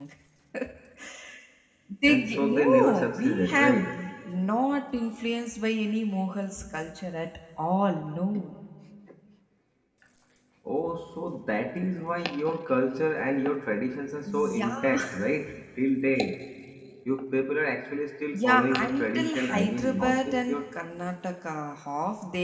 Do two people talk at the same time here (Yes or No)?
Yes